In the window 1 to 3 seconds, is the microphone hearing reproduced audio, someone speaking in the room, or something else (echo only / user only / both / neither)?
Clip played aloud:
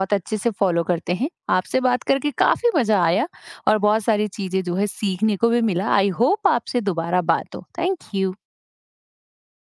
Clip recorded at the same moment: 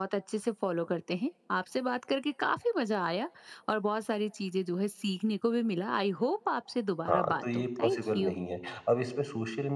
echo only